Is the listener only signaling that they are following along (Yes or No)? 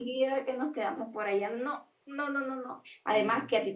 Yes